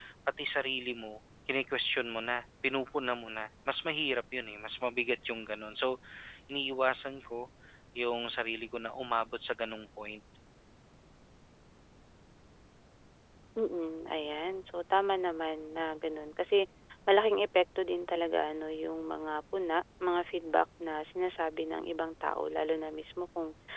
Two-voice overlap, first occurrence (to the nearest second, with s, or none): none